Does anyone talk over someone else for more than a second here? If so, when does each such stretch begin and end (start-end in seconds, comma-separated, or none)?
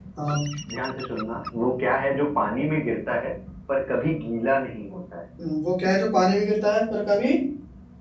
none